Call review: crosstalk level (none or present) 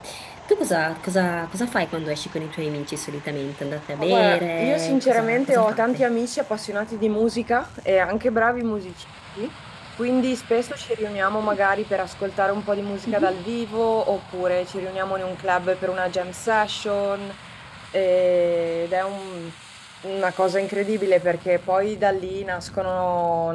present